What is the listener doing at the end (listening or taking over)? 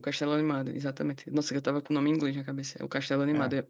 listening